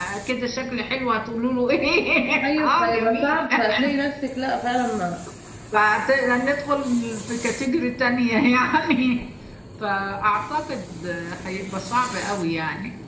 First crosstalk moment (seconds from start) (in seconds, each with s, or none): 2.4 s